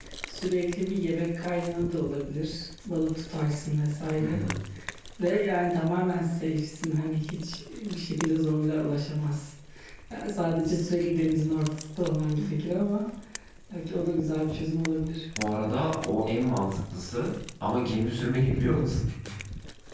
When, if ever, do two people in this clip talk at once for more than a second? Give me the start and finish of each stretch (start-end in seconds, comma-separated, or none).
none